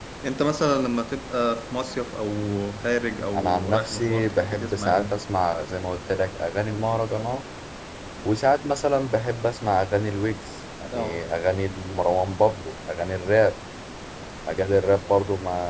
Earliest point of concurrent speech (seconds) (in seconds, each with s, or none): 3.4 s